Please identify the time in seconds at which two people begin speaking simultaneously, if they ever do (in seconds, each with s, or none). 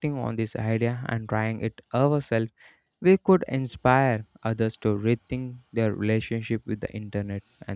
none